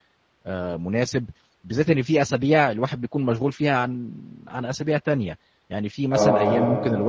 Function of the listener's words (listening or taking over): listening